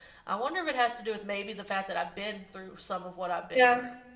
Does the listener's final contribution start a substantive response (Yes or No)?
Yes